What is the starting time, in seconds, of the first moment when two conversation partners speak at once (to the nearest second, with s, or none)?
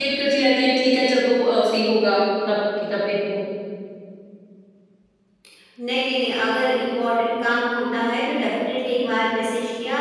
none